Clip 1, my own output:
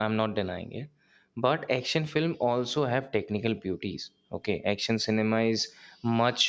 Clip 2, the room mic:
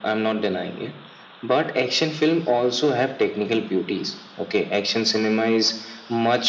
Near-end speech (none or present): none